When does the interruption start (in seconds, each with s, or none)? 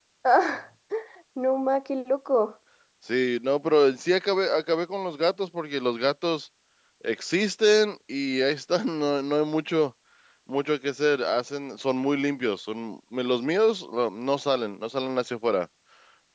none